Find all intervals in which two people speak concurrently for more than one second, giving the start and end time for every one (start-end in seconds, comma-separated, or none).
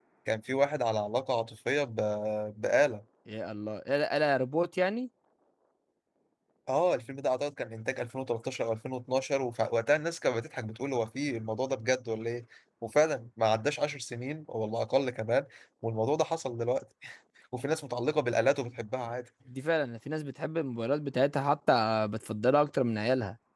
none